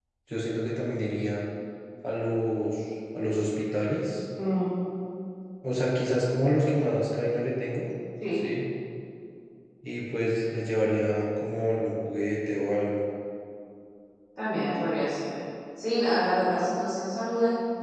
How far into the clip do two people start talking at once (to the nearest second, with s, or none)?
none